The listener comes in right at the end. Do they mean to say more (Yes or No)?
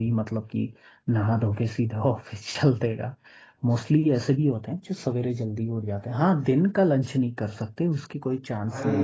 Yes